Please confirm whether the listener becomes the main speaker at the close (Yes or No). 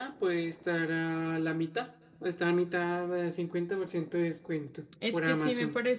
Yes